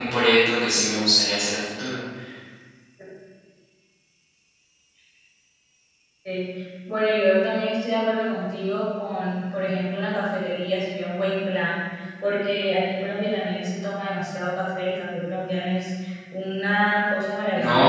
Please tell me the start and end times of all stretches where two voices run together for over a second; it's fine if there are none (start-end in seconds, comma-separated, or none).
none